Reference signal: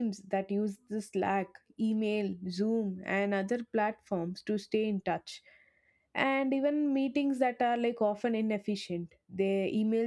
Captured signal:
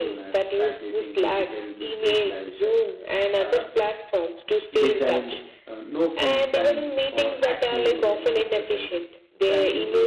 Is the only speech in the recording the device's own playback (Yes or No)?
No